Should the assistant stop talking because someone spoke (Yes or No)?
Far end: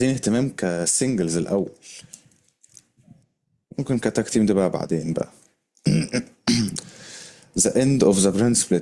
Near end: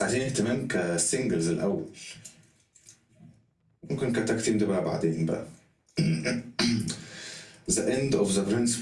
No